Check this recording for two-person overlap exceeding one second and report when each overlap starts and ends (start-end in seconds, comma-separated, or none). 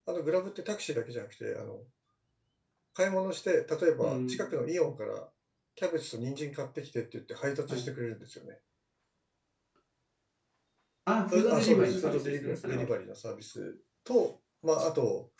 11.3-12.9